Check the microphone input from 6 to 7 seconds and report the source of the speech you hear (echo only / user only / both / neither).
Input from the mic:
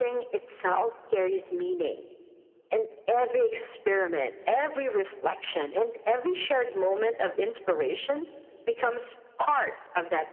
echo only